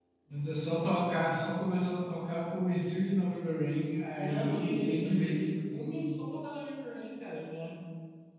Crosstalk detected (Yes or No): Yes